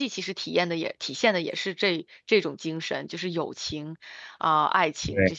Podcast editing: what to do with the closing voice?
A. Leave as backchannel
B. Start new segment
B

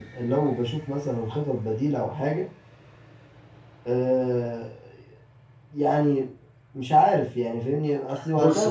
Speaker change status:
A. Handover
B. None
A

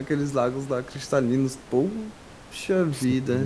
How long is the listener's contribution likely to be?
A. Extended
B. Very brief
A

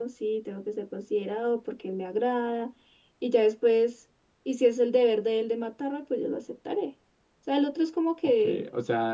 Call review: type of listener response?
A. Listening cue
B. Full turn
B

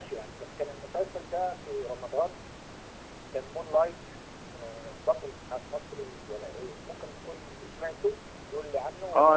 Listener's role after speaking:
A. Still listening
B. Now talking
B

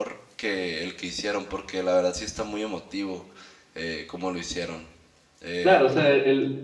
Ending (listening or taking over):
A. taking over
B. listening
A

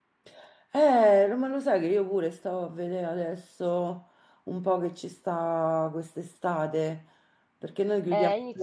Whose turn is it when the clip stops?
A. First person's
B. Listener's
B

